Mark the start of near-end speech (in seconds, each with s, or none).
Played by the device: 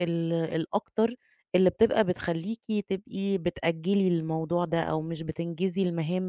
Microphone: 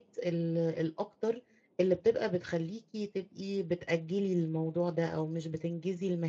none